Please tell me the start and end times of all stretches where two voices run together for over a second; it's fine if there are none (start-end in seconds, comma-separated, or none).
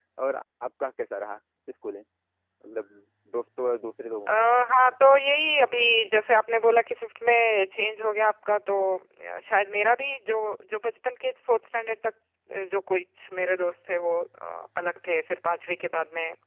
none